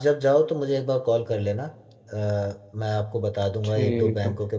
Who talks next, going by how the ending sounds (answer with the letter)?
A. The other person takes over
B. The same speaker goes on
B